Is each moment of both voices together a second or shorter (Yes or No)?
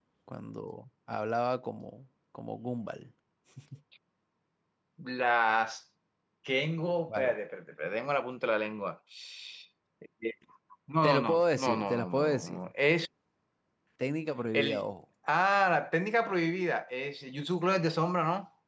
No